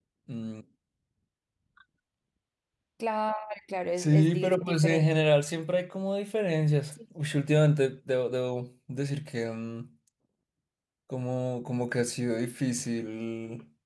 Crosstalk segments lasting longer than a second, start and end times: 4.0-5.2

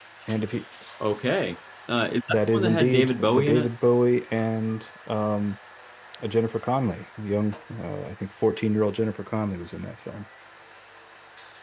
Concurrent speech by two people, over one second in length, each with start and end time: 2.3-3.7

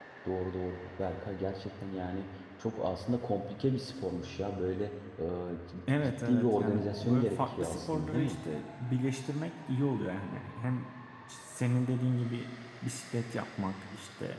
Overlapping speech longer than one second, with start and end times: 5.9-8.3

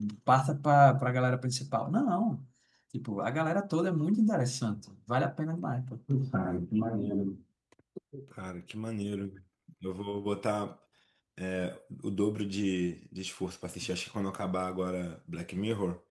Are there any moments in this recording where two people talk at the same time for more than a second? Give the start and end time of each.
none

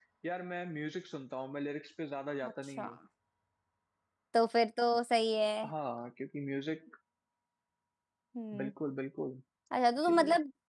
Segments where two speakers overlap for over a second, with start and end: none

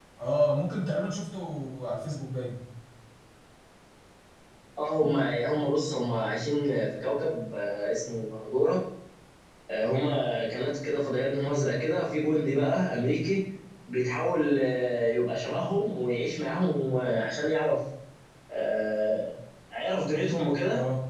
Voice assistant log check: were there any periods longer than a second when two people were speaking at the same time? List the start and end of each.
none

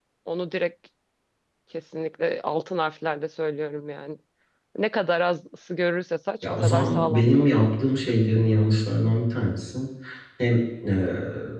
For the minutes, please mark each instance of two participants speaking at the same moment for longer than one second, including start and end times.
6.4-7.7

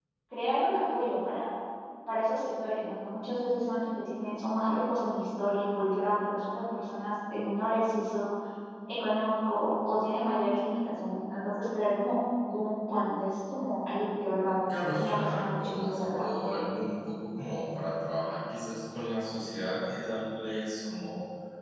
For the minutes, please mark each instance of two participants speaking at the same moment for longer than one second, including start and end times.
15.0-16.6

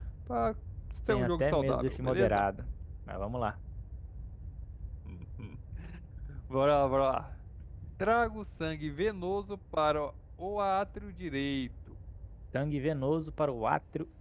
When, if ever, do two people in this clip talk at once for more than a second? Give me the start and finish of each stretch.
1.1-2.4

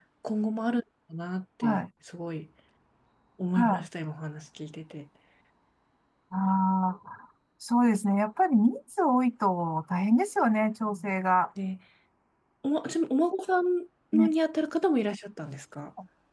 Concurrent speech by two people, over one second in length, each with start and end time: none

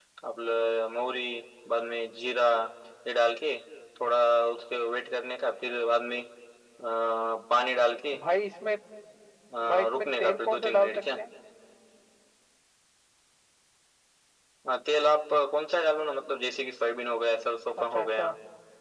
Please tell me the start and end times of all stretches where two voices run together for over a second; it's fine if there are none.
9.7-11.0

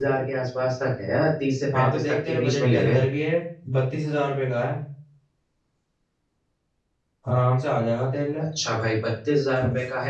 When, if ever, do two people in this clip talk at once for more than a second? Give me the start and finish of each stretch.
1.7-3.0

